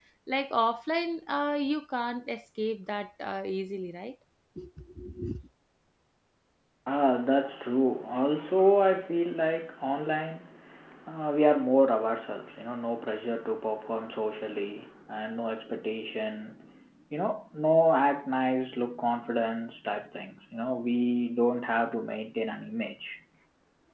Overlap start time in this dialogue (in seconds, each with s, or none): none